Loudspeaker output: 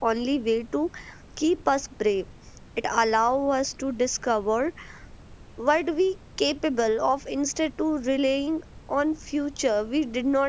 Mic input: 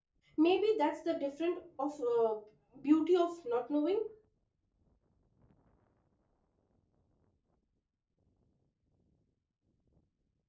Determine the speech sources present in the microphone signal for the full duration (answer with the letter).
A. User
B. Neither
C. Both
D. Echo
A